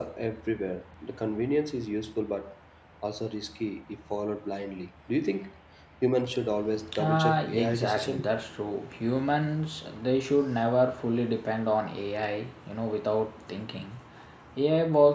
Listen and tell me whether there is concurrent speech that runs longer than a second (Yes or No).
Yes